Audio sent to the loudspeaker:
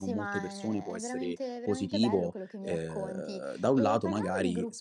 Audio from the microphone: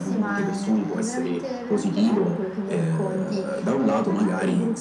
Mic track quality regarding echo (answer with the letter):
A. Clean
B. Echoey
B